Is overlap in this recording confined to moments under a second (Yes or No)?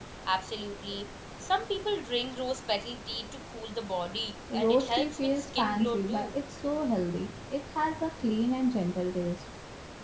No